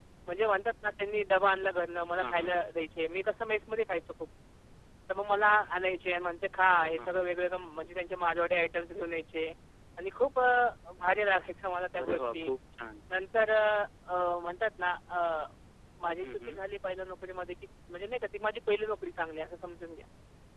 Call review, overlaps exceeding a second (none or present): none